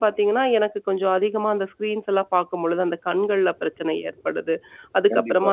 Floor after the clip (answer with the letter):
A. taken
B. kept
B